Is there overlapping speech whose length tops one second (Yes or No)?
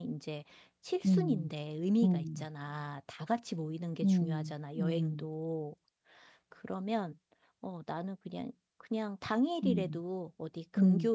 Yes